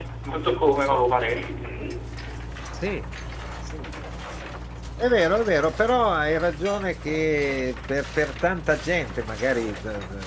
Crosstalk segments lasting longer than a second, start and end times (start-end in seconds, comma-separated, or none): none